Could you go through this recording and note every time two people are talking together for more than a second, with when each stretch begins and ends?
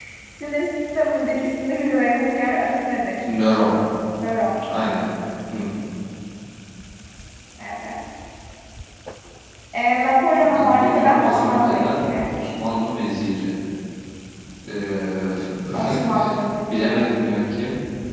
10.5-12.3

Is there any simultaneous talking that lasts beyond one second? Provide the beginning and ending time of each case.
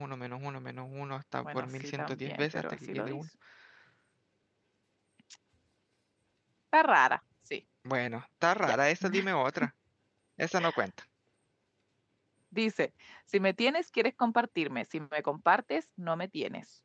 1.4-3.2

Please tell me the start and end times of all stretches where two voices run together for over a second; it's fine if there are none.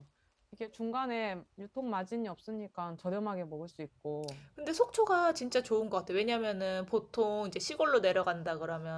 none

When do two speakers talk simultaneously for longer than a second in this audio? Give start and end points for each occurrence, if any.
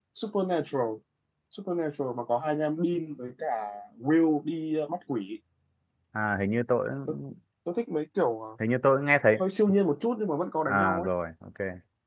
none

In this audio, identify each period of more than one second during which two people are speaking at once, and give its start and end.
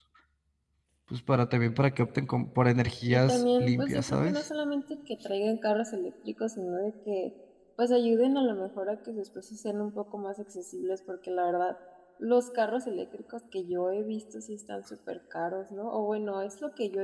3.1-4.4

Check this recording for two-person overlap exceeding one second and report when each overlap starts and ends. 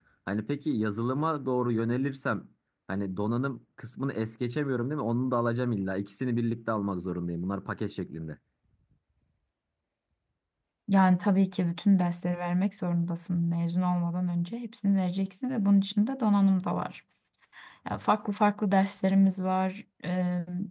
none

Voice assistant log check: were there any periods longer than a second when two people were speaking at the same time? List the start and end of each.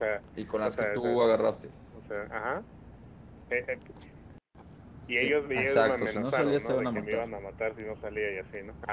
5.2-7.2

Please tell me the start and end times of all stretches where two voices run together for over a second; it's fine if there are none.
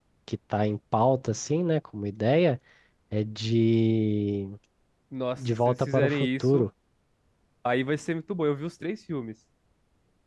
5.4-6.6

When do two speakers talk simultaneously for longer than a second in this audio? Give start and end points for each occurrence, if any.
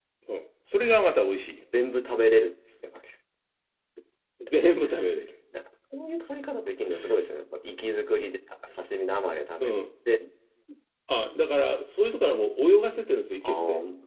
none

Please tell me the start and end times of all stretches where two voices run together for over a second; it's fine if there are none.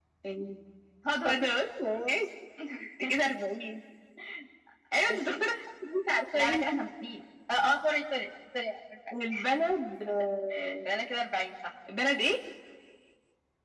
none

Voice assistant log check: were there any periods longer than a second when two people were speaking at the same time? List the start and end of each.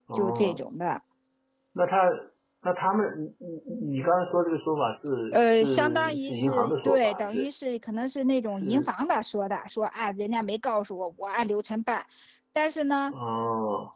5.3-7.5

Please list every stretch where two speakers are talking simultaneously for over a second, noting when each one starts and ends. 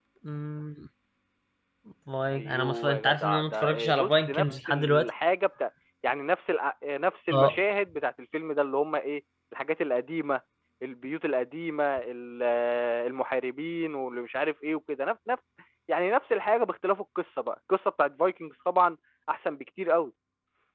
2.3-5.1

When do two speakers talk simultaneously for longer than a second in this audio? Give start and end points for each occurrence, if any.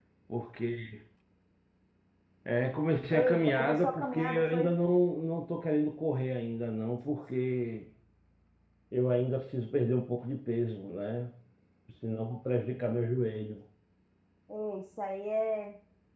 3.1-4.8

